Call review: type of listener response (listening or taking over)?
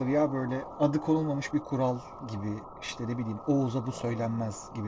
listening